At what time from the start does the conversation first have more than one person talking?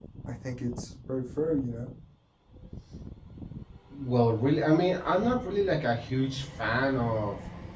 none

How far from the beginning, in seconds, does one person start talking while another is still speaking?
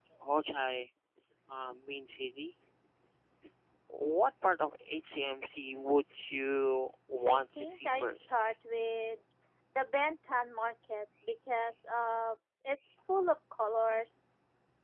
7.3 s

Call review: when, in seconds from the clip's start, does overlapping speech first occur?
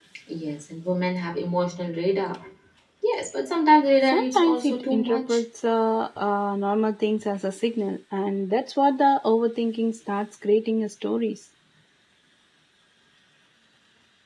4.1 s

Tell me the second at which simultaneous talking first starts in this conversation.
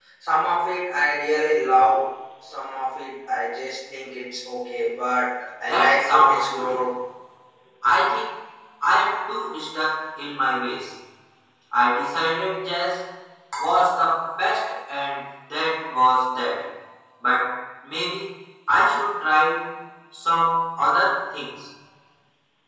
5.6 s

